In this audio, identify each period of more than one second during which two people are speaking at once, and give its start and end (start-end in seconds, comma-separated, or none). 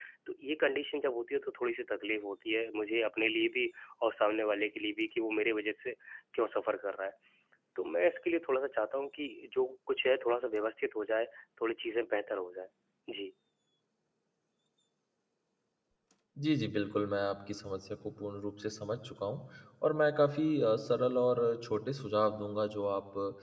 none